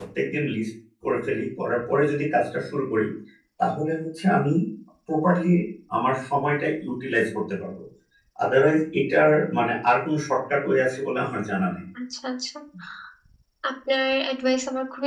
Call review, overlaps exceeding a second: none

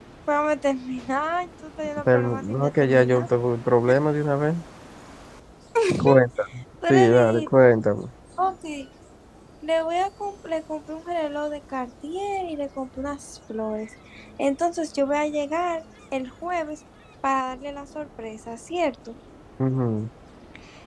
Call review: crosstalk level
present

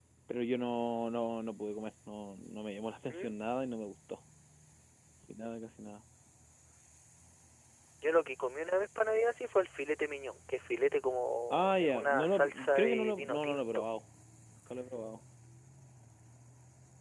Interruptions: present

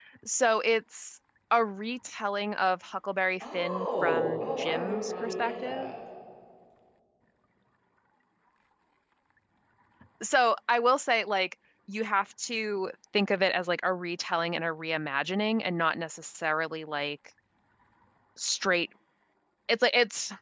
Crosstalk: present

